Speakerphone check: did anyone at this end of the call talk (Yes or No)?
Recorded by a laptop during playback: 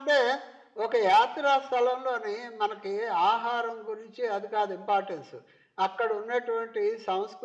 No